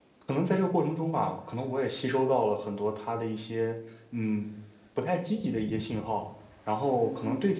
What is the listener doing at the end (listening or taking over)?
listening